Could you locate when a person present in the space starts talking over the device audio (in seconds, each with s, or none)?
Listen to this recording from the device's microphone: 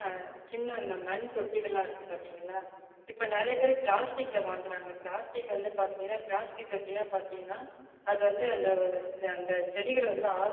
none